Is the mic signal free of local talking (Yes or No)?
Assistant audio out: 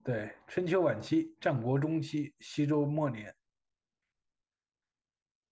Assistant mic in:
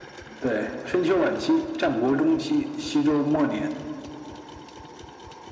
Yes